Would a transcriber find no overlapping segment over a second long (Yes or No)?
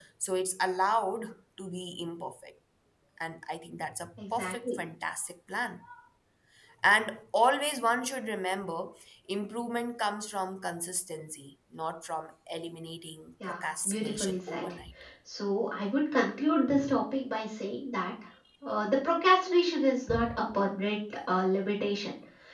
No